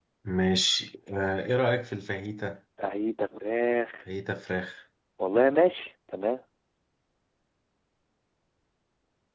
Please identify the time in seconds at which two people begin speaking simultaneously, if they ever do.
none

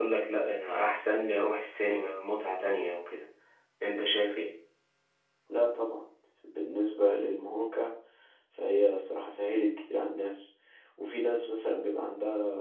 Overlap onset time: none

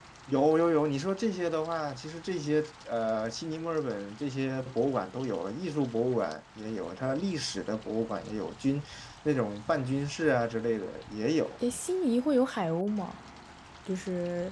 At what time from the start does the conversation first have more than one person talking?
none

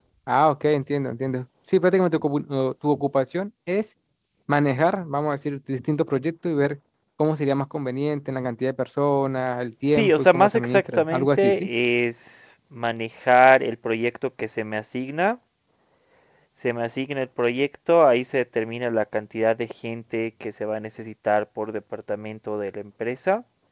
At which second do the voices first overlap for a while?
9.9 s

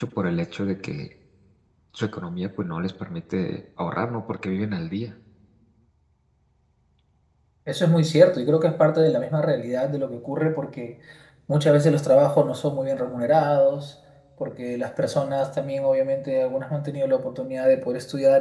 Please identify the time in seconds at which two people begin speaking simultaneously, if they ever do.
none

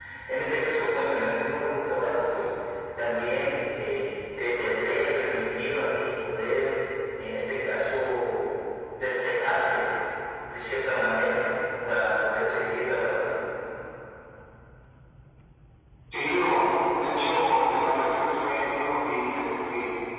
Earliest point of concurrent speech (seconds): none

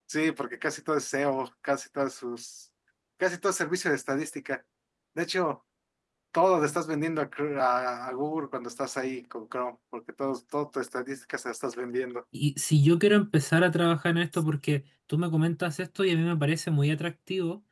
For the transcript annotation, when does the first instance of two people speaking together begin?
none

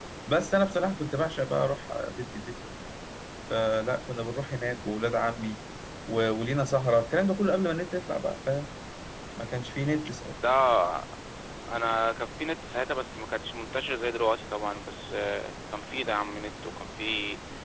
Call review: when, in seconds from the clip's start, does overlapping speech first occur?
none

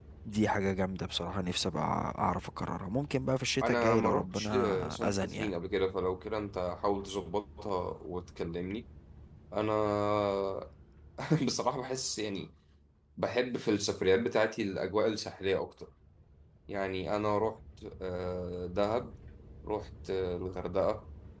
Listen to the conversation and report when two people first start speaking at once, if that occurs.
3.6 s

